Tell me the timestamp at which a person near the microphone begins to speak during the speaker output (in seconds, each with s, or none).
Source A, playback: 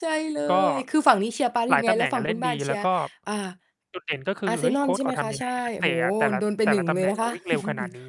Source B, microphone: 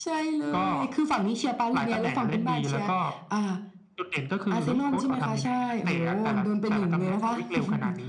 none